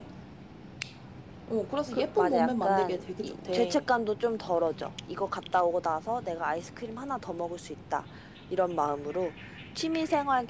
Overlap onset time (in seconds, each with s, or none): 1.9 s